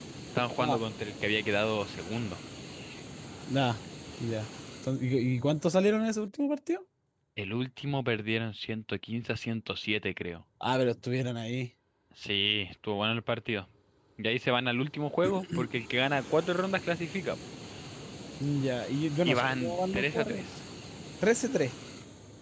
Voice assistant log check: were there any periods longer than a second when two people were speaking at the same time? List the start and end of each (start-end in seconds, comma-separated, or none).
19.2-20.4